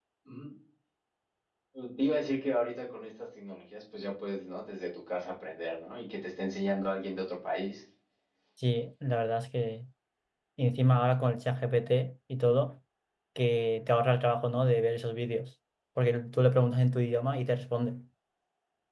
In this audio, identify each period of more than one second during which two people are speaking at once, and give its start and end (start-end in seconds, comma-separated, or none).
none